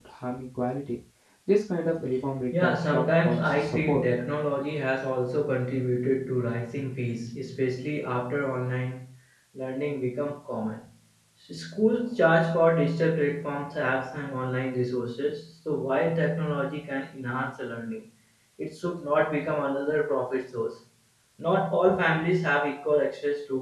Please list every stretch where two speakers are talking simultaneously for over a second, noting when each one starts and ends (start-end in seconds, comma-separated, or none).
2.6-4.0